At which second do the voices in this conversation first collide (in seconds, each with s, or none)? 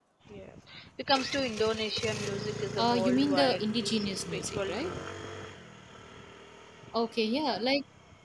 2.8 s